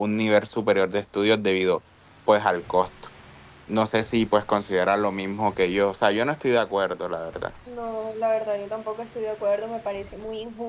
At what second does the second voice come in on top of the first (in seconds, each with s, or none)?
none